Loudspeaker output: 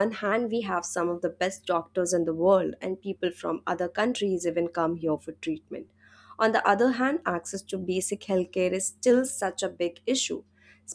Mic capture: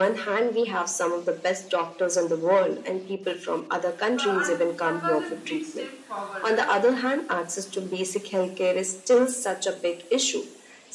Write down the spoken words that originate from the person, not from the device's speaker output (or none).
but, and that was a big step forward, right?